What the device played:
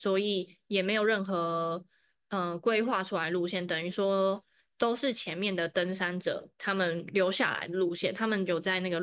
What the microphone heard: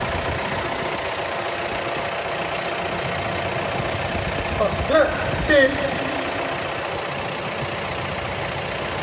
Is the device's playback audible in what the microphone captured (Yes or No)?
No